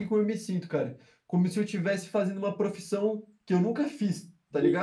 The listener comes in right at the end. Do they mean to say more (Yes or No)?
Yes